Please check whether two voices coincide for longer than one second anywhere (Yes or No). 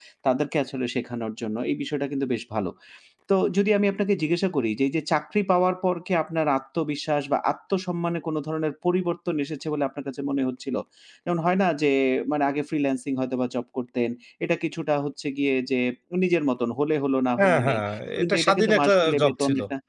Yes